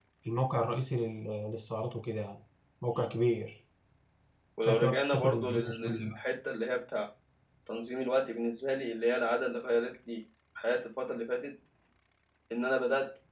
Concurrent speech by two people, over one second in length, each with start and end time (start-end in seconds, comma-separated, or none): 4.6-6.2